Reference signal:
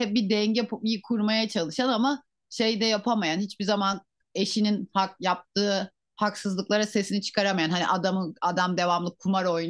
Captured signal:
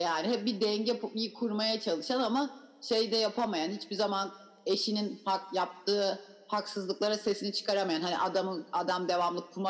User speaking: No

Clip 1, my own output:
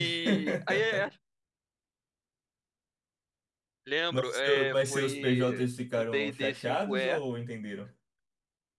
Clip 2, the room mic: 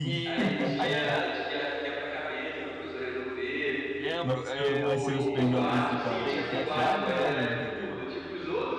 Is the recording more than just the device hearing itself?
Yes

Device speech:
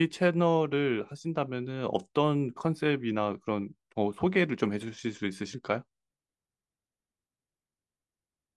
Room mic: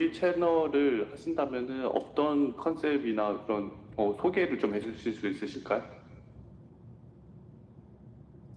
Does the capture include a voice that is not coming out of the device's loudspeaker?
No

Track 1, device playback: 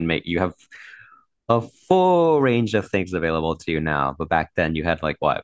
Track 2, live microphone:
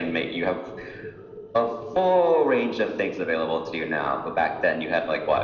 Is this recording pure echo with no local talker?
Yes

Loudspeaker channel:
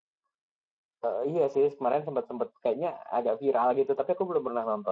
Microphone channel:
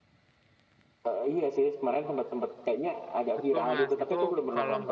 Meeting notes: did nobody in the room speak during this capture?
No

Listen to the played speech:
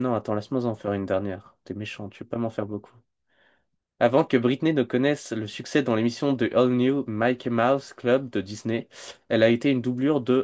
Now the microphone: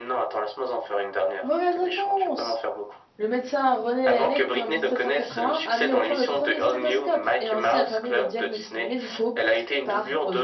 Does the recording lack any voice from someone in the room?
No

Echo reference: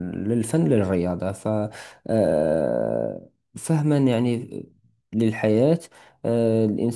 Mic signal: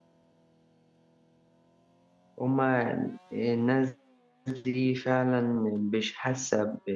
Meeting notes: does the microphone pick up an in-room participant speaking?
Yes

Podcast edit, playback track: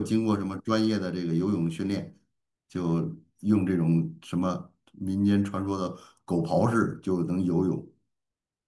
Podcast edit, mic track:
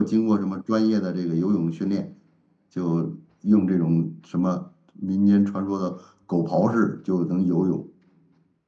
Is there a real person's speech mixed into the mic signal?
No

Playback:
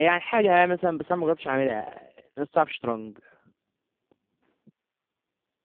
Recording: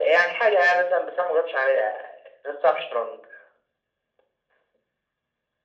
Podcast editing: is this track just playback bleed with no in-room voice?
Yes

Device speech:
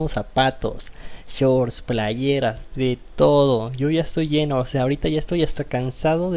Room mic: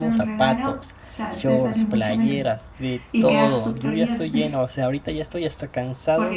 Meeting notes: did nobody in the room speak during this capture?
No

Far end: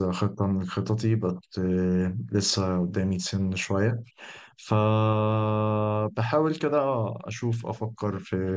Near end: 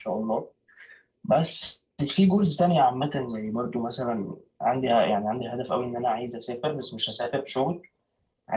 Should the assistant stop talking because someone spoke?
Yes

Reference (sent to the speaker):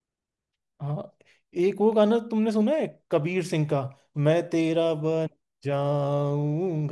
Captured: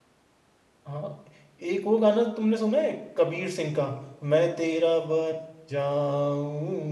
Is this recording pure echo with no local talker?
Yes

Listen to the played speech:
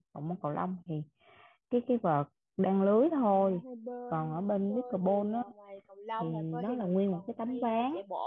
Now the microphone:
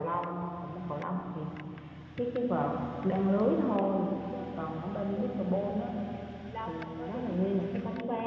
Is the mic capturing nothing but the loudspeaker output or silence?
Yes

